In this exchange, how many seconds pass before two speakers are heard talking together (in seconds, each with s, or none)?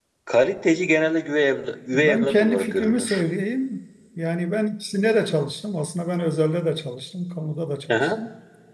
1.9 s